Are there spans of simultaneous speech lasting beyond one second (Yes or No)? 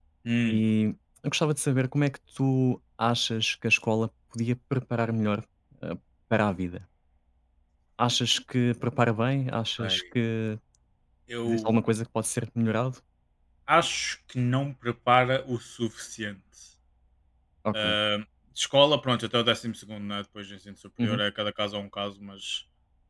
No